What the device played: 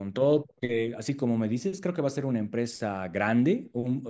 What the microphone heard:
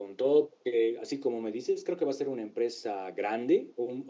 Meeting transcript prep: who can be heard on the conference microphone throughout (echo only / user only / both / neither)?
echo only